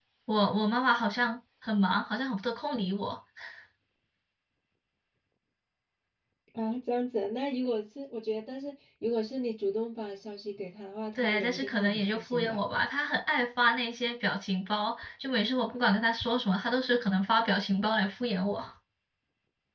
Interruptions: present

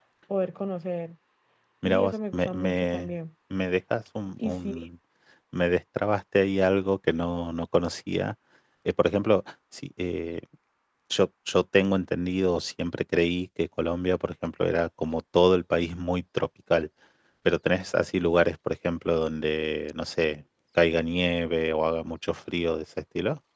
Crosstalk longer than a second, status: present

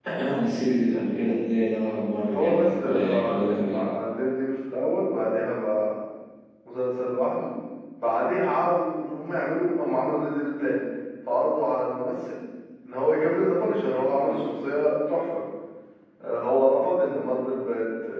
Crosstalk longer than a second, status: present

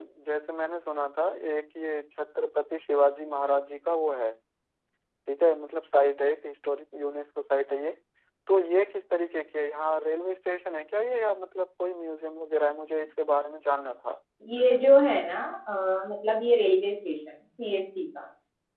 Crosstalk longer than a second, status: none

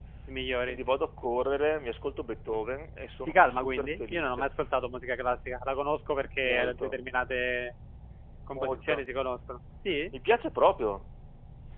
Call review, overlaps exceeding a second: present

